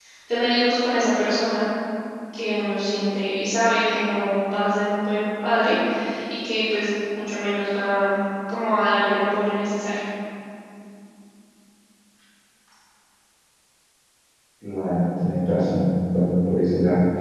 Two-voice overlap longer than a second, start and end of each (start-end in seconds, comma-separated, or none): none